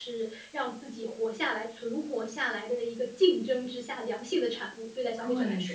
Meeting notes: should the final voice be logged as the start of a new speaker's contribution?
Yes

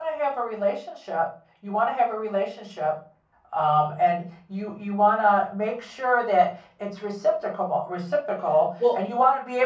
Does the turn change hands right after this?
No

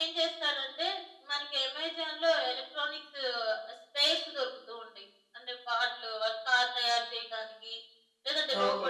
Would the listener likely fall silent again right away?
Yes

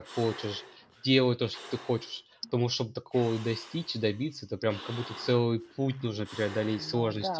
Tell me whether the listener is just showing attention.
No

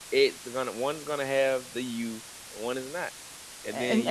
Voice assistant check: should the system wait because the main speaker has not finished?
No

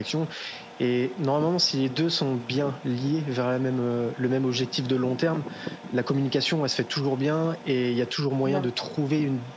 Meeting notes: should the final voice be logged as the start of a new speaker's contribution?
No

